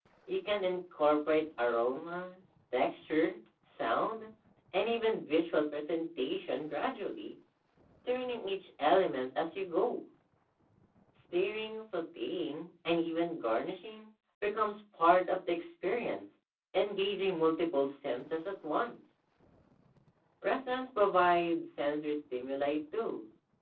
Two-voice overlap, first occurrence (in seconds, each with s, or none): none